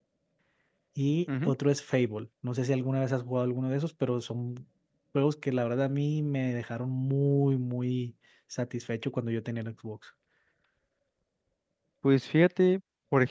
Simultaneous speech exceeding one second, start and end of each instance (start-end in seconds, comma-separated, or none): none